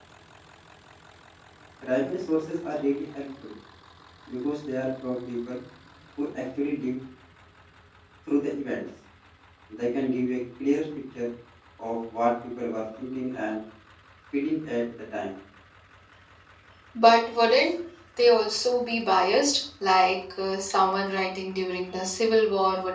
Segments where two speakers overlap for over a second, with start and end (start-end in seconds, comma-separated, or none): none